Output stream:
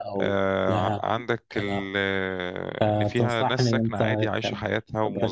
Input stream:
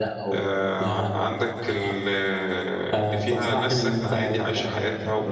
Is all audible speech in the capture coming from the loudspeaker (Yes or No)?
Yes